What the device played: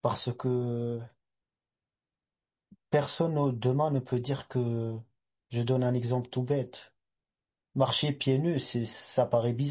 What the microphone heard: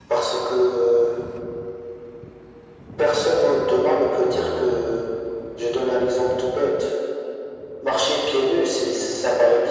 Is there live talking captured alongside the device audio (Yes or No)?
Yes